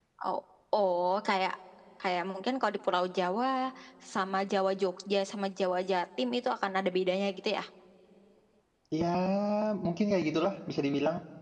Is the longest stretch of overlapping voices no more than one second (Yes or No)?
Yes